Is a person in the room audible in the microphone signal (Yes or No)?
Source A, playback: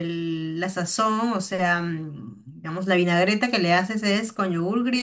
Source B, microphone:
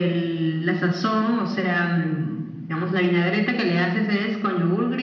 No